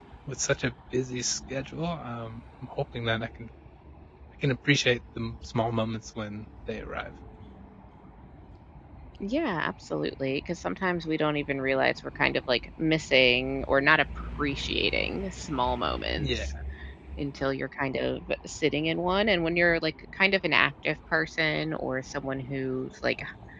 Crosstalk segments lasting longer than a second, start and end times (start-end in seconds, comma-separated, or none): none